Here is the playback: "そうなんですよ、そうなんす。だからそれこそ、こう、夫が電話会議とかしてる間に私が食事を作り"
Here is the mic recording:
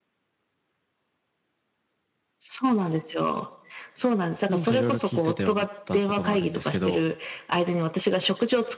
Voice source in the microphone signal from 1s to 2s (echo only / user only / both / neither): neither